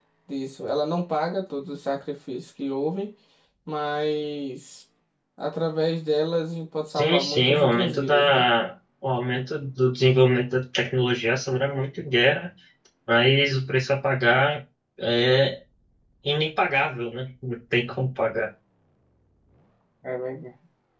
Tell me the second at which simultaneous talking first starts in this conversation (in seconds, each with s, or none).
7.0 s